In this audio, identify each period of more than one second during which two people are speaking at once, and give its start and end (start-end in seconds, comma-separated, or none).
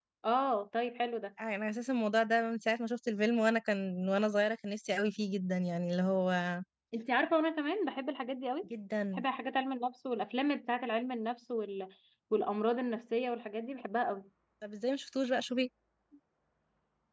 none